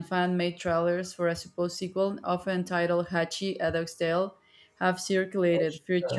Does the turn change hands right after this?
No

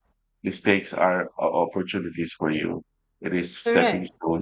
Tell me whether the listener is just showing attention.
Yes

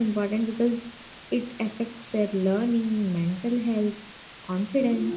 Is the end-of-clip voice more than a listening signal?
No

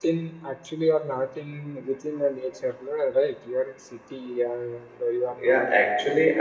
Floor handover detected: Yes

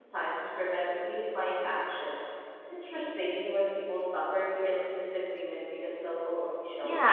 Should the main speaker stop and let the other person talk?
Yes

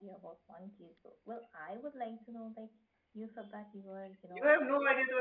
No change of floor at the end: No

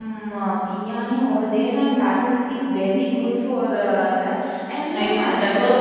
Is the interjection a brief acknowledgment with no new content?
No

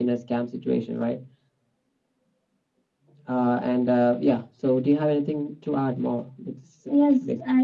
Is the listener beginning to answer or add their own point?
Yes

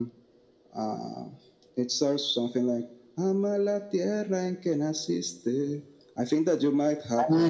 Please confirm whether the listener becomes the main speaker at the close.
Yes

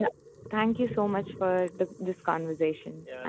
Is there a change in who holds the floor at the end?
Yes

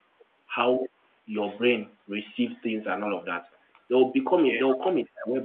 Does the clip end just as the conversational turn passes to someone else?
No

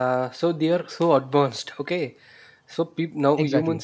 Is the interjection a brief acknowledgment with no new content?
Yes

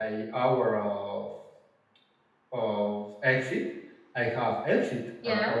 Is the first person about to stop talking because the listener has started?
No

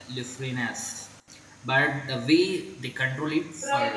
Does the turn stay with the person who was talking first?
No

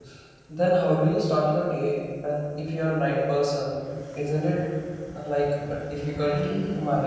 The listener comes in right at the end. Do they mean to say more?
Yes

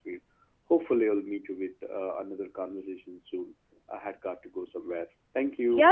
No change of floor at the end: No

